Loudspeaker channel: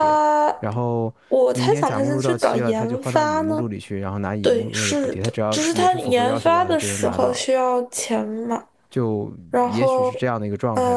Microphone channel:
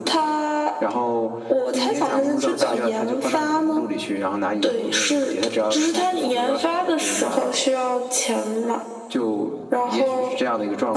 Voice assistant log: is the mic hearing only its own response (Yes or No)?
Yes